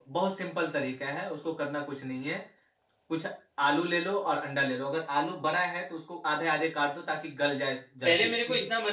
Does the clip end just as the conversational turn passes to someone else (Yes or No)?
Yes